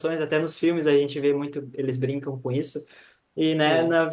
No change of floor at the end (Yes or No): Yes